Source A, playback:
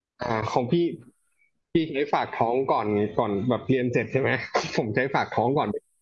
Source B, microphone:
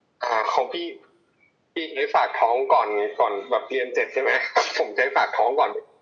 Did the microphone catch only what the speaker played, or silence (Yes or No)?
Yes